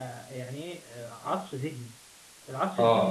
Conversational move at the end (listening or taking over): listening